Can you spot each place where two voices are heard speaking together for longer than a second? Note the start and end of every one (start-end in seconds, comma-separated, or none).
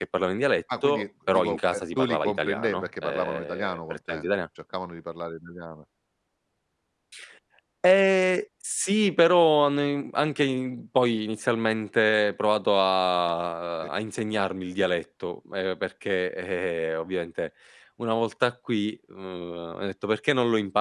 0.8-4.3